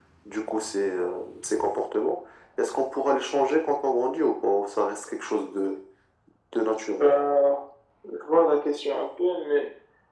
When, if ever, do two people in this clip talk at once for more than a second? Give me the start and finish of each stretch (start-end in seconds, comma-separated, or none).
none